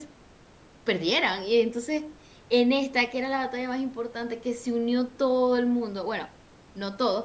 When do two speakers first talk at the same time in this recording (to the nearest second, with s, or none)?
none